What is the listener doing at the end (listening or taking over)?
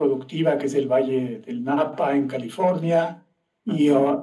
listening